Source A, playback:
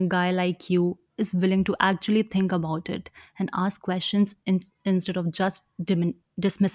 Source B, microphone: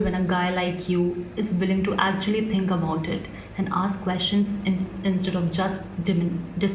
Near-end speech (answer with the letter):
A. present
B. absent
B